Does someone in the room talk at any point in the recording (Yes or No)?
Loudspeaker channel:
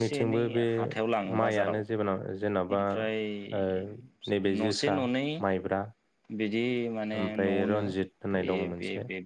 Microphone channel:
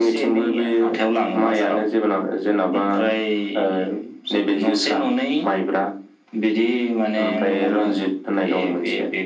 No